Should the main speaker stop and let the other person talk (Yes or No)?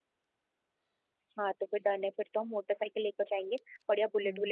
No